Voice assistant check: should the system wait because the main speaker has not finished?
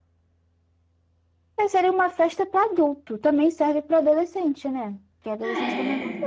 Yes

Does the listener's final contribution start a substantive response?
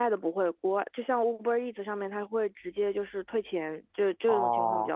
Yes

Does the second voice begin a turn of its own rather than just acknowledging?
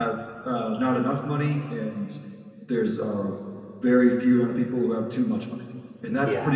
No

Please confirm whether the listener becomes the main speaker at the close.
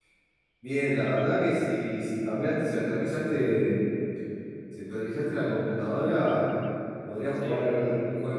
No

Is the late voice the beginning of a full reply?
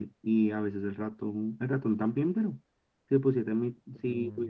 No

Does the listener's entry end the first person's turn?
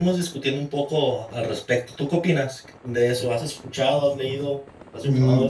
Yes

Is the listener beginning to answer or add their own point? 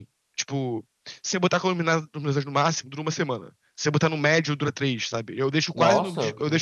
No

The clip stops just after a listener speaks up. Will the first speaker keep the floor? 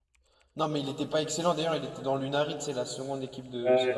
No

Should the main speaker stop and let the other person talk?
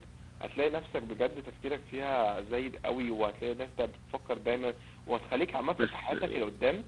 No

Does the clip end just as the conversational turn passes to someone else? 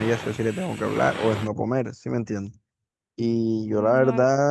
No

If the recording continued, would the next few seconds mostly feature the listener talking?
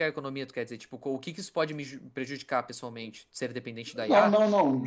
Yes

